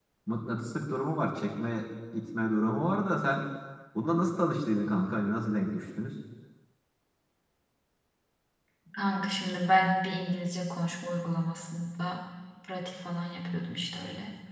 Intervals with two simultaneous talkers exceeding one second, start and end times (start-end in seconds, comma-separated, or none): none